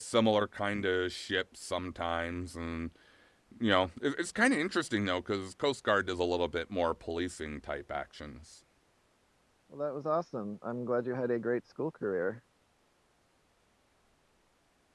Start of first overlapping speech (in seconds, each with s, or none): none